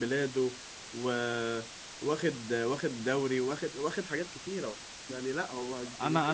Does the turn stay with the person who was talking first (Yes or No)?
No